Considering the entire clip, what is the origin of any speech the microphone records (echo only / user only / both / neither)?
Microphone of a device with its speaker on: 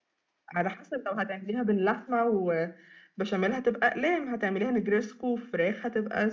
echo only